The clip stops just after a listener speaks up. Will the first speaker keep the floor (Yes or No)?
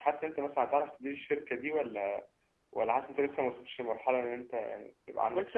No